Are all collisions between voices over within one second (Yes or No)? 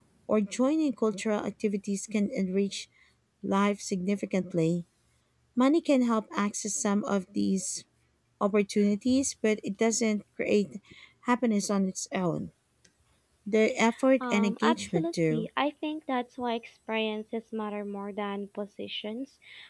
No